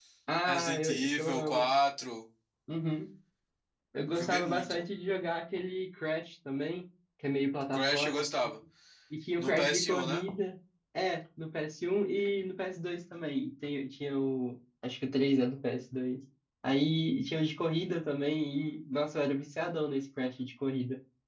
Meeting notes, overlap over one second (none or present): present